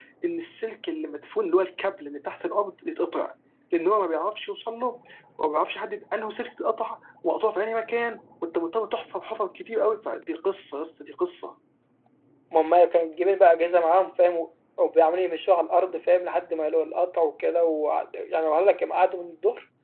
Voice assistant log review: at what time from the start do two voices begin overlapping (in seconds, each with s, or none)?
none